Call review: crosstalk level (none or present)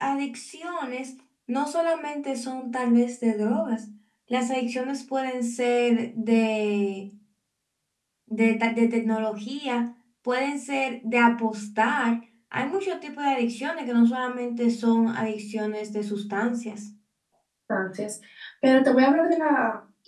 none